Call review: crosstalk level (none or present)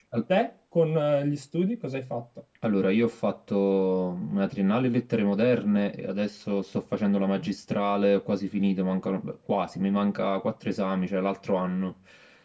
none